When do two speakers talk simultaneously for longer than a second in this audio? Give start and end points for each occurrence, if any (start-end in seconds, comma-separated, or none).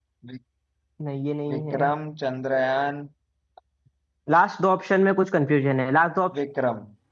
none